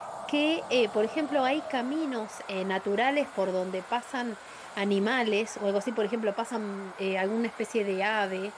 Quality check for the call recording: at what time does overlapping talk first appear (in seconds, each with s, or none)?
none